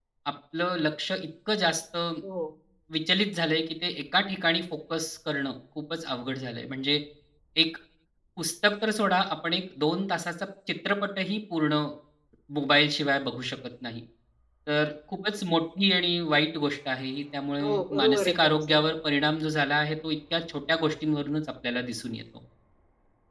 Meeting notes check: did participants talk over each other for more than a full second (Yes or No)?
Yes